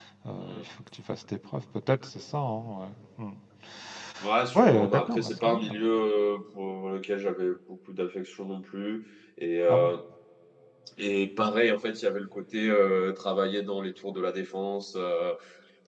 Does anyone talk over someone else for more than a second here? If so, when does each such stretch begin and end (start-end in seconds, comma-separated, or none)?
4.5-5.7